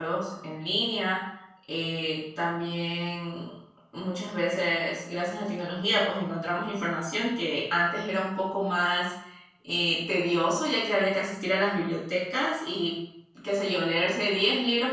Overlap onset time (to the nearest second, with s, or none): none